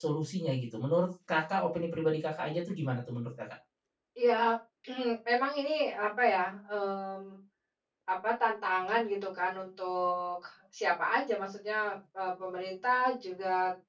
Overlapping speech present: No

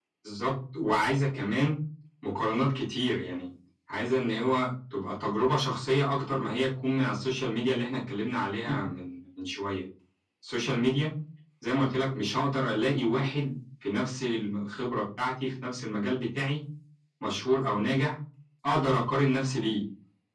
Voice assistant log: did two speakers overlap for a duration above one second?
No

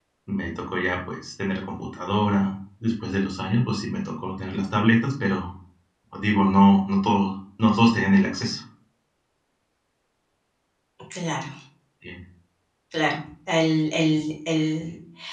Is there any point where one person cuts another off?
No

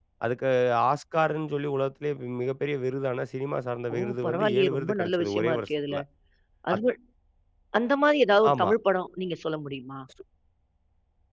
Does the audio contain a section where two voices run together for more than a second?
Yes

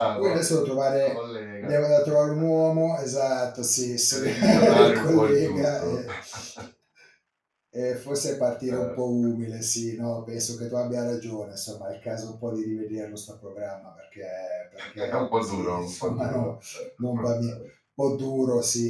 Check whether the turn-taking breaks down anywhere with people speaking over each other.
Yes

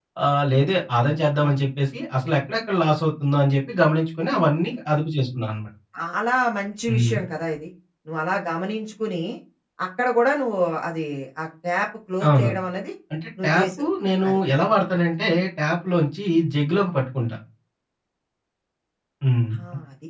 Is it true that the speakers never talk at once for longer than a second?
Yes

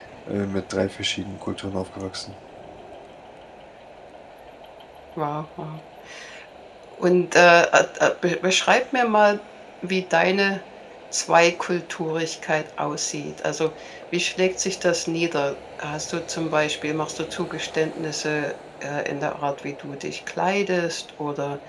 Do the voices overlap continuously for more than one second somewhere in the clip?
No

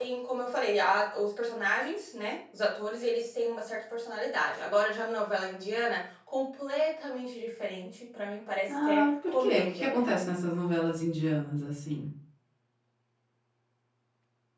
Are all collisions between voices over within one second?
No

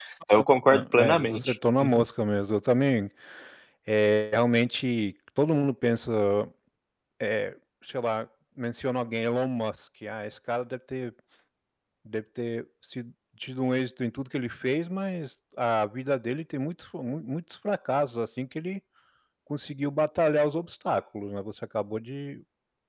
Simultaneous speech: Yes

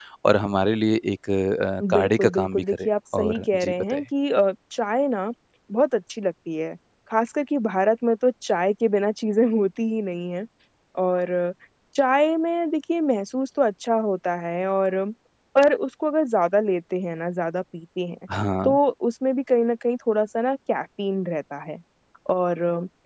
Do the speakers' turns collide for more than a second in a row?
Yes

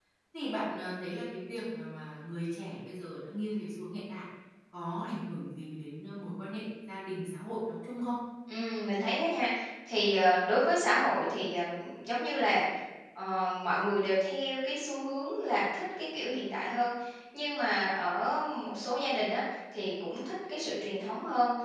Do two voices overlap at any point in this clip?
No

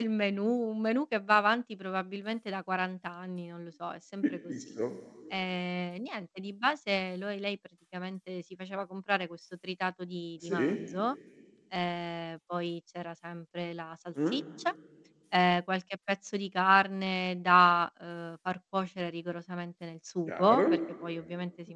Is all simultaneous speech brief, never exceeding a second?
Yes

